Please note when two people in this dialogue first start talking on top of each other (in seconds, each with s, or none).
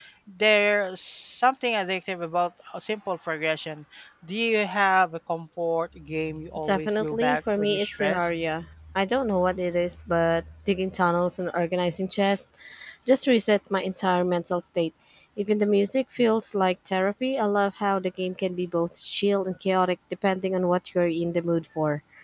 6.6 s